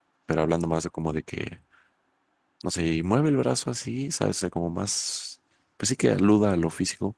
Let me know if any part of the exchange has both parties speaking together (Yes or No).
No